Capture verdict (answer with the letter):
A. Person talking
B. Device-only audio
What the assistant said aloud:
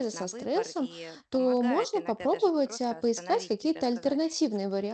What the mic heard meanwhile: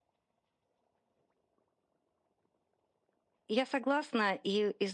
A